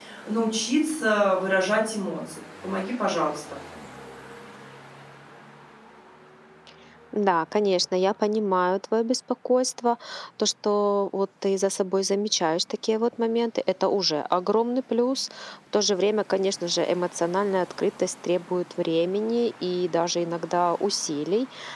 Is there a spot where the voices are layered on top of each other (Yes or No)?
No